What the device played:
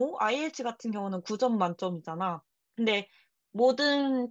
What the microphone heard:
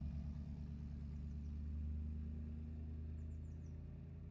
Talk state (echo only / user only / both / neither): neither